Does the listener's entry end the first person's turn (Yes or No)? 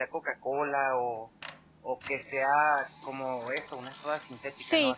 Yes